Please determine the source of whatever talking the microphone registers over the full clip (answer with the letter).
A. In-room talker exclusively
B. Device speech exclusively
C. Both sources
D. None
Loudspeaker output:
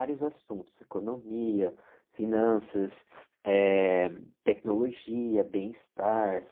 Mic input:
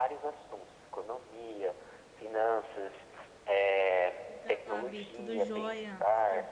C